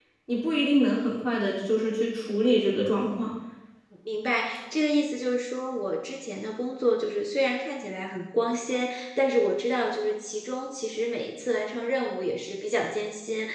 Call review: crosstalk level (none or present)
none